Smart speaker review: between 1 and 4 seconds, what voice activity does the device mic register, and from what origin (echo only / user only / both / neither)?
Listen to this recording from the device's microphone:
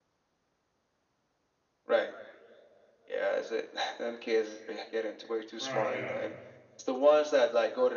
echo only